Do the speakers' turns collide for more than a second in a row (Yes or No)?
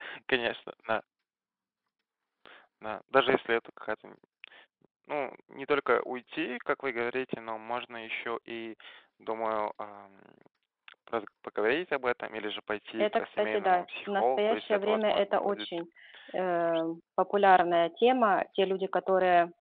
Yes